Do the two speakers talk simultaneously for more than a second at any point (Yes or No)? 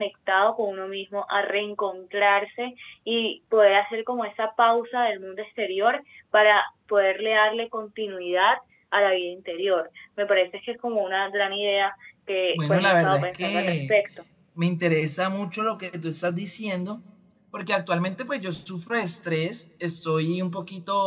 Yes